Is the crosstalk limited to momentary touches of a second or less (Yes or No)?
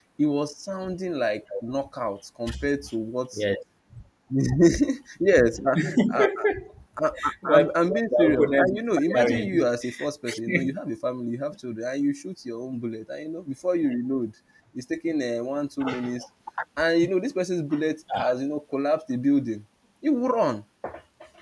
No